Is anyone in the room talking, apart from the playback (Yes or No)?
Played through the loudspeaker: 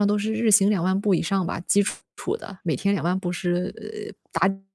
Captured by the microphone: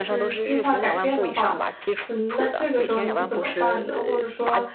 Yes